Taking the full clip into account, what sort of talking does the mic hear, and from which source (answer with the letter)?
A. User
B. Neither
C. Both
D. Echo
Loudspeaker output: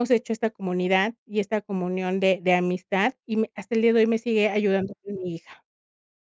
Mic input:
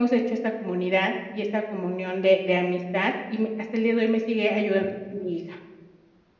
D